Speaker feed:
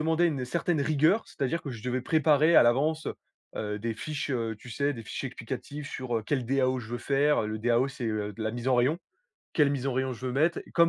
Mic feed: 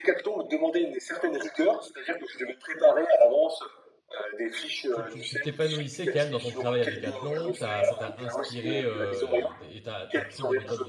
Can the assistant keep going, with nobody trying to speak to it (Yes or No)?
No